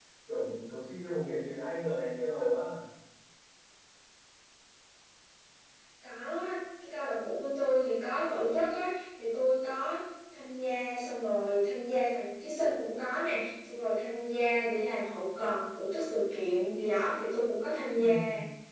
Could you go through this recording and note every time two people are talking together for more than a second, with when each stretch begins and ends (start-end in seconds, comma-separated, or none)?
none